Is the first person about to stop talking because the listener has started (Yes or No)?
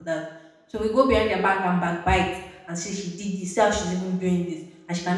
No